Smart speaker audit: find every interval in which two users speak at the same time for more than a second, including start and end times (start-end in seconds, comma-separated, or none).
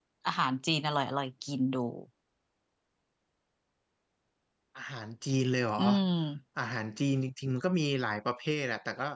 none